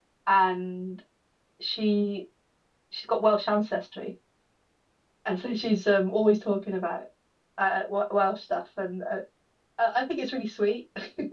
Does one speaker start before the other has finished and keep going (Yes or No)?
No